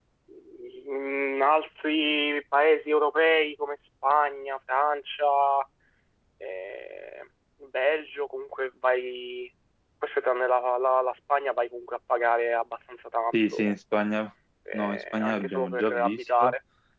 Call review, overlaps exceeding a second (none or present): present